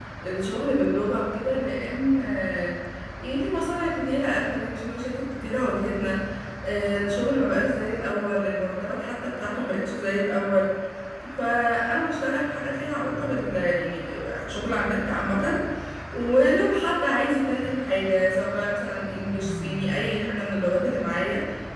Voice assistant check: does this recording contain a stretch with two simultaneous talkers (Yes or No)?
No